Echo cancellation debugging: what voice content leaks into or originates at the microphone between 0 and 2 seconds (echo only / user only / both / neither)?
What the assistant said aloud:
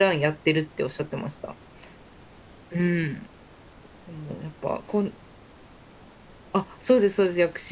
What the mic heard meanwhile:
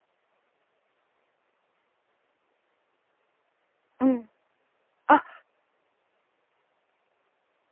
neither